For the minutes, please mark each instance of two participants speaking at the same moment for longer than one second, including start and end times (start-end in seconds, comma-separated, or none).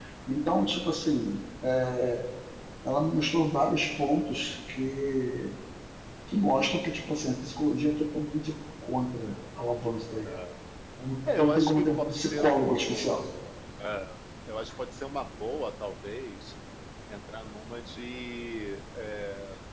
11.4-13.2